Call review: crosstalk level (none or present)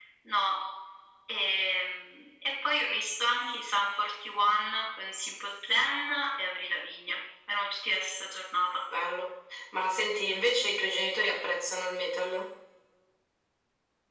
none